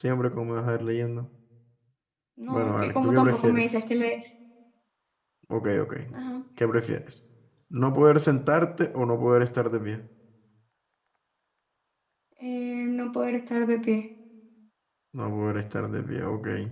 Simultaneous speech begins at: 2.5 s

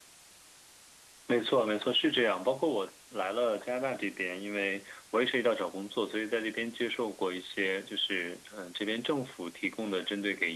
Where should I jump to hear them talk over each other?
none

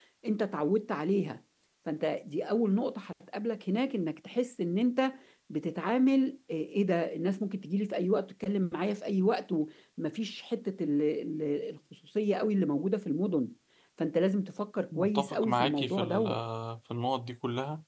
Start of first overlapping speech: 14.9 s

